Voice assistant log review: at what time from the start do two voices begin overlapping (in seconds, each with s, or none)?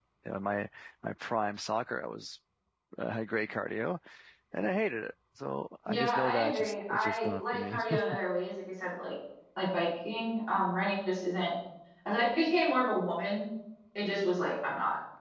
5.9 s